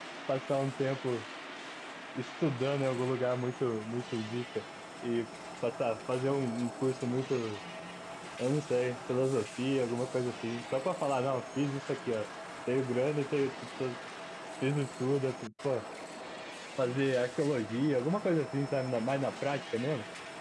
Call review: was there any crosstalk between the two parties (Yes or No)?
No